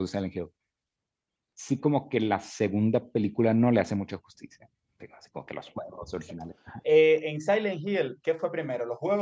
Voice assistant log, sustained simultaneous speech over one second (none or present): none